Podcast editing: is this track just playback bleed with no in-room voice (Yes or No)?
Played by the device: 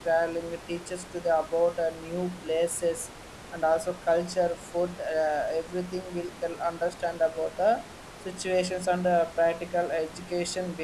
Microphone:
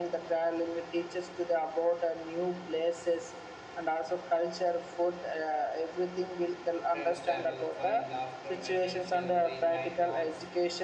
No